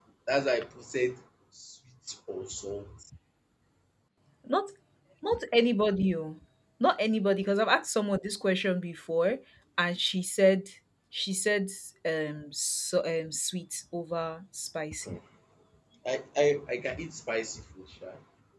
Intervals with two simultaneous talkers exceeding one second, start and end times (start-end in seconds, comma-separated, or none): none